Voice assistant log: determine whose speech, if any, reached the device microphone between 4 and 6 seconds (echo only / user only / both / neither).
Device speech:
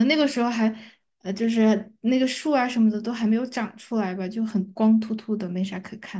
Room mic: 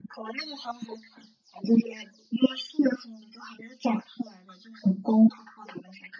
echo only